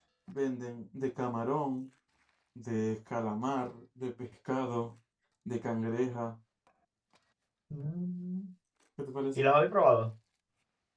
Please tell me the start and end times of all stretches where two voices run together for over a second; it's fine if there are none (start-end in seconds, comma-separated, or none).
none